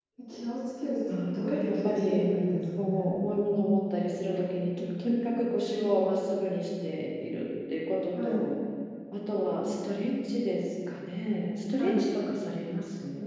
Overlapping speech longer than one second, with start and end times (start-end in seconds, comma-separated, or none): 1.1-2.3